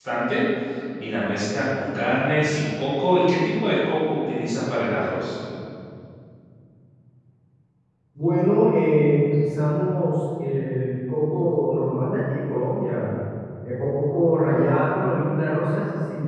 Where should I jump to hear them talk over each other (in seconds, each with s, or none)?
none